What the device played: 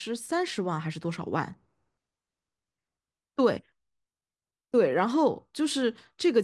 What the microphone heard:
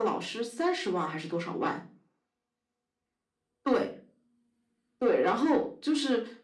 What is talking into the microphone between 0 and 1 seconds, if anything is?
echo only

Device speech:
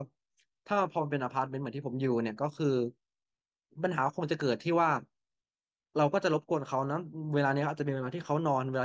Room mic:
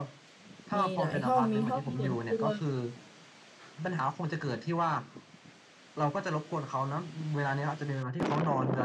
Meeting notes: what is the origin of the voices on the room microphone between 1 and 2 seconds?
both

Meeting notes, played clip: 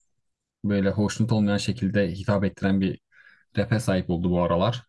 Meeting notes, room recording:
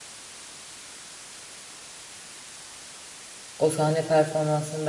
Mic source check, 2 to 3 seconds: neither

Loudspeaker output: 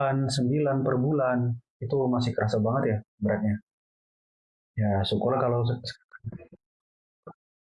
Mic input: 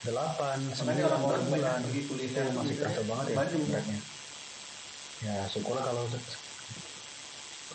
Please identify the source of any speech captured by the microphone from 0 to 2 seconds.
both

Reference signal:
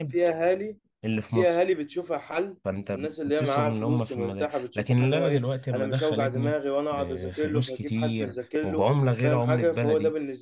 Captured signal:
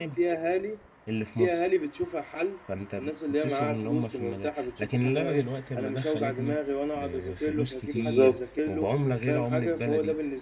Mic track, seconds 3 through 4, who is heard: echo only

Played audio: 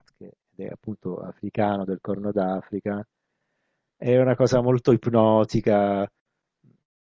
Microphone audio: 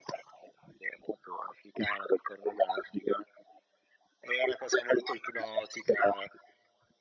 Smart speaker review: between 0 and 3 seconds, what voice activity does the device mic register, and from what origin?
echo only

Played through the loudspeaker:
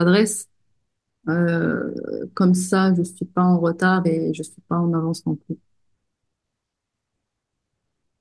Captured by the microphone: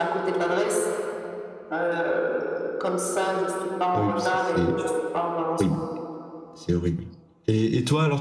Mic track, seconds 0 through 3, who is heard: echo only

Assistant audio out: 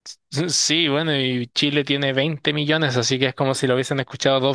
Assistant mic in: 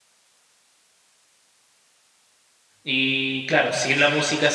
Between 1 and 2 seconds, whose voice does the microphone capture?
neither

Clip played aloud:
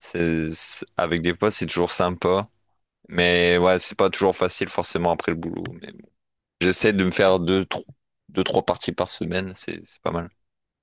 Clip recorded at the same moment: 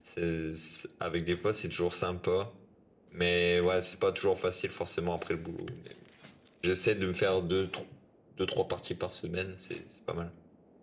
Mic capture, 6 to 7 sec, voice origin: echo only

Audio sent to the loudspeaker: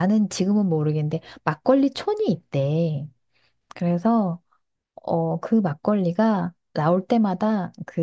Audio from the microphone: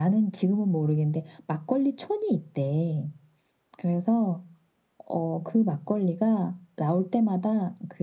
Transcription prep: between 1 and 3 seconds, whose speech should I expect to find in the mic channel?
echo only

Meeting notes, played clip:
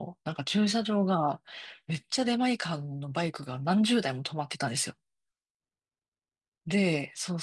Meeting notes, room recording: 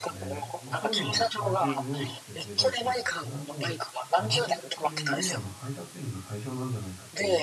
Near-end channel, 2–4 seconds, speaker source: both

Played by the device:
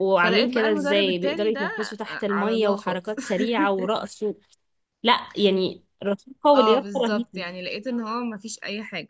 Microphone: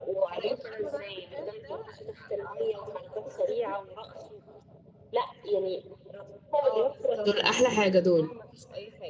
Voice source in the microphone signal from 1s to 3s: echo only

